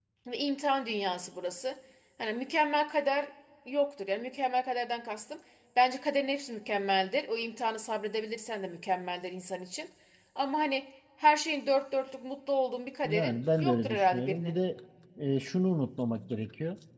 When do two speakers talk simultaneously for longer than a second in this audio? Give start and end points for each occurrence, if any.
13.0-14.6

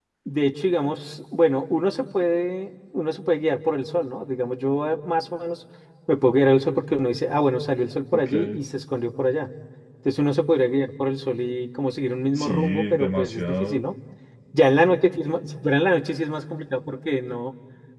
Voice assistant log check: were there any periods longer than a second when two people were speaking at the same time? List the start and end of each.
12.3-13.8

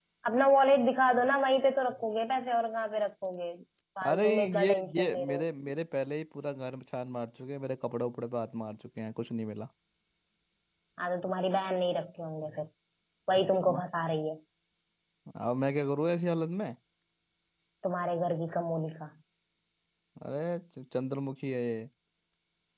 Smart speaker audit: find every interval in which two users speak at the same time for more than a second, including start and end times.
4.1-5.4

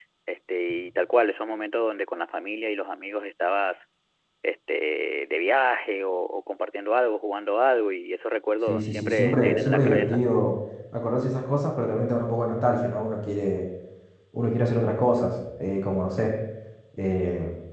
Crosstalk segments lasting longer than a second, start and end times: 8.7-10.2

